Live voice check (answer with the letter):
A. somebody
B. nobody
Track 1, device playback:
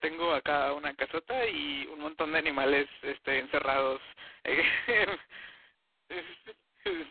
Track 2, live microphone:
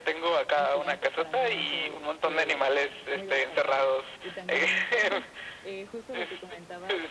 A